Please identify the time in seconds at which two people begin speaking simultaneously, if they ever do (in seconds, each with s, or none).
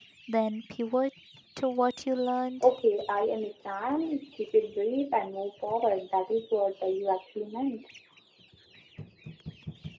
none